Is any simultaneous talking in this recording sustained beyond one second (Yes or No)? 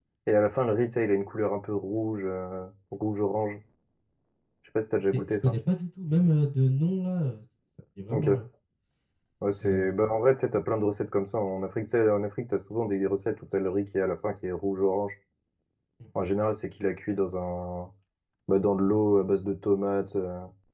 No